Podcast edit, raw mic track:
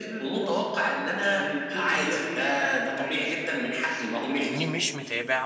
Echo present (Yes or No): Yes